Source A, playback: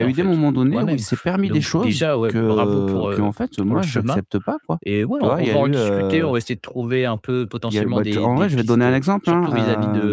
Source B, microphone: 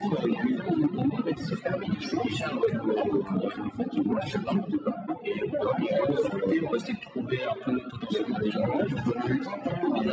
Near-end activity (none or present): none